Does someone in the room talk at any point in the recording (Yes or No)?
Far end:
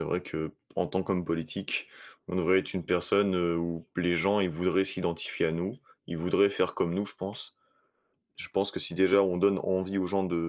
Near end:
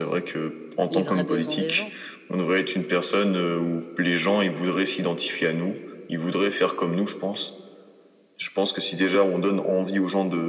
Yes